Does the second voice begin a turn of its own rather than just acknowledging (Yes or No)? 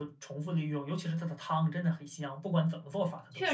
Yes